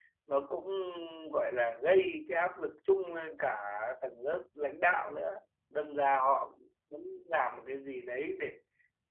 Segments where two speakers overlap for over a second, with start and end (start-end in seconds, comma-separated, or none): none